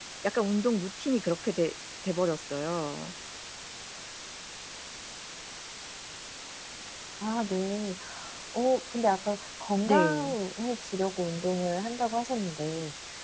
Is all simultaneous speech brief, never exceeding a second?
Yes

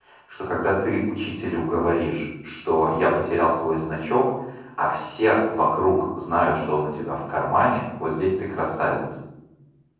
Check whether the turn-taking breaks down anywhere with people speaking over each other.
No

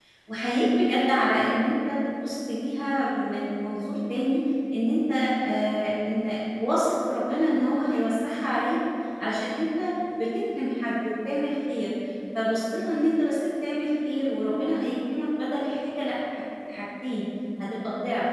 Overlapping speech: No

